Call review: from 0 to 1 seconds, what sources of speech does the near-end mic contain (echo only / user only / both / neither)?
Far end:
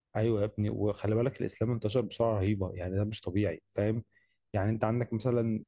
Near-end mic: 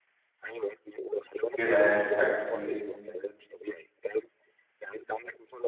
echo only